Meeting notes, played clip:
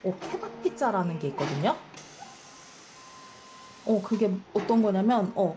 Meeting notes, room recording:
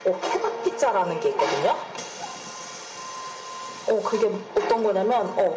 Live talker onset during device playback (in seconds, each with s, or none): none